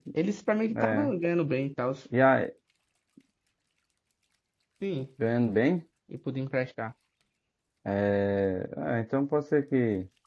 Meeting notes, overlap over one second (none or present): none